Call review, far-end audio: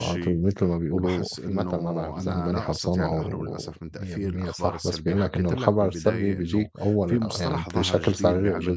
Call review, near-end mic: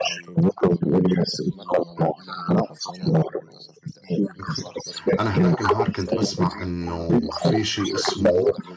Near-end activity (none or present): present